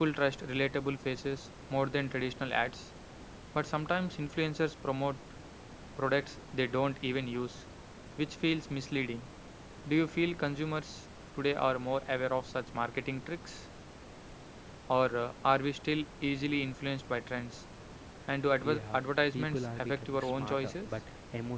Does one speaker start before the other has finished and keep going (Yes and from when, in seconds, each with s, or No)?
Yes, from 18.6 s